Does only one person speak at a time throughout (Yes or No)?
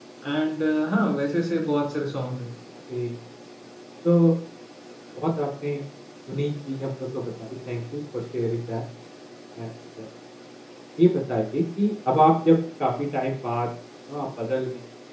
Yes